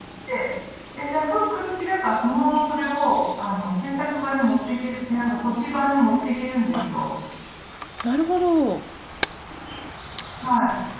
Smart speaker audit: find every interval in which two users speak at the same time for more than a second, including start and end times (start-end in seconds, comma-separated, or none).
none